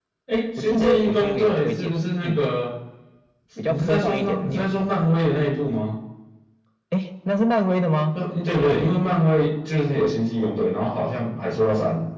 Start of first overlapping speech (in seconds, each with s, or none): 0.6 s